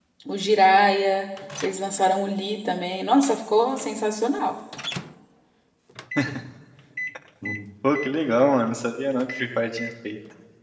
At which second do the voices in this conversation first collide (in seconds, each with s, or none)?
none